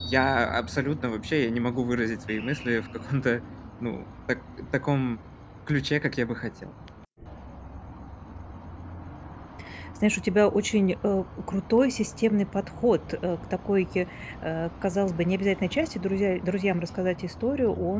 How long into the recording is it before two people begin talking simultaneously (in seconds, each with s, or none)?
none